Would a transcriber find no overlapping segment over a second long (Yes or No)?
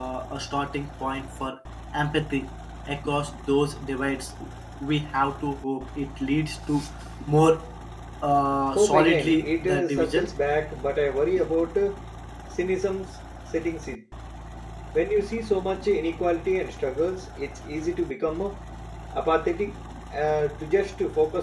No